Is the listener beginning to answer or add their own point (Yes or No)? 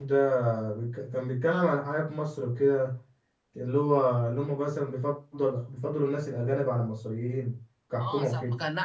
Yes